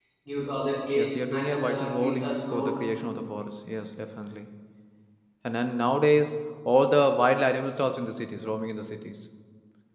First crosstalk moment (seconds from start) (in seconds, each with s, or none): 0.9 s